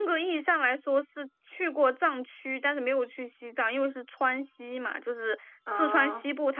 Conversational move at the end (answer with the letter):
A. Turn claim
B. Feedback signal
B